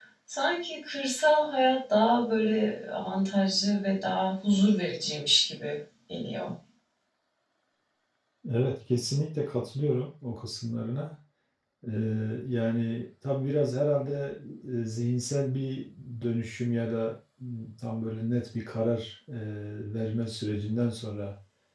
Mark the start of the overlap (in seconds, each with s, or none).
none